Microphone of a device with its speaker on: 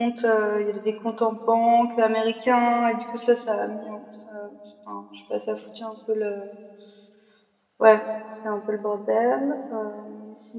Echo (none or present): none